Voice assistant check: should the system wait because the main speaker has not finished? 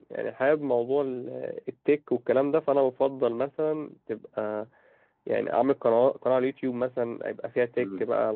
Yes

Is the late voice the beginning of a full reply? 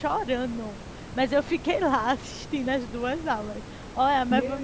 Yes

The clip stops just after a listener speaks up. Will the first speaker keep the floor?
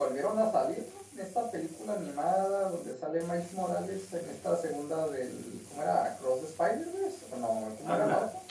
No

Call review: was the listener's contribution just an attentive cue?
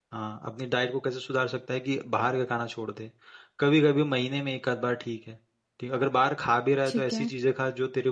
Yes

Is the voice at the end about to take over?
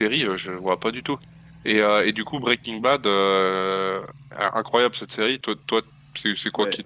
Yes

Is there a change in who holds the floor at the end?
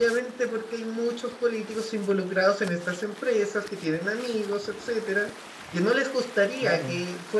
No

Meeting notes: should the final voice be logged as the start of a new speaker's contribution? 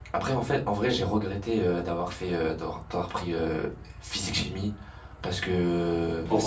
No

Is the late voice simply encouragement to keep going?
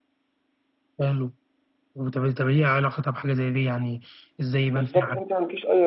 No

